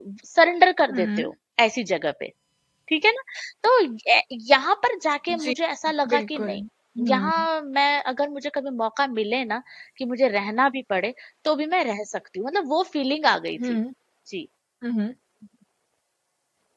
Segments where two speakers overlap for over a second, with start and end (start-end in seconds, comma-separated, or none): none